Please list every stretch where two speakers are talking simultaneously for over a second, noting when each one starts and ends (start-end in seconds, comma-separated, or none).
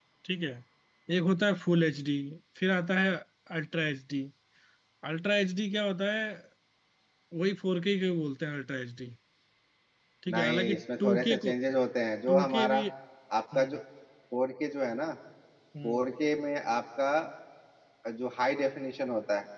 10.3-11.5